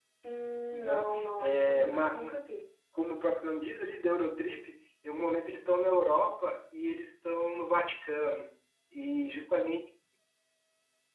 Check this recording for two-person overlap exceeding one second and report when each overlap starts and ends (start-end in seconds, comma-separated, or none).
0.7-2.4